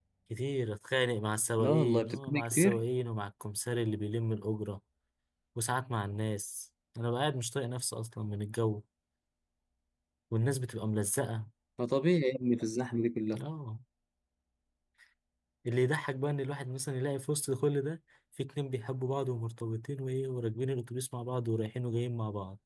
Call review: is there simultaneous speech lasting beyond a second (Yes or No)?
Yes